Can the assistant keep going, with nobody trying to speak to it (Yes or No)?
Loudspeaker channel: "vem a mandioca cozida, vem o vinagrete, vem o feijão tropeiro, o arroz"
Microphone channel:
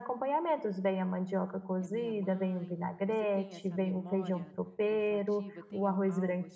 No